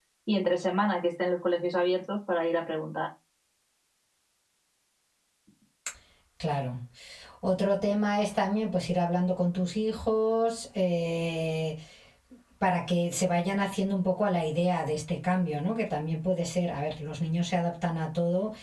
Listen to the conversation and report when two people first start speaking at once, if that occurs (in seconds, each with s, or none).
none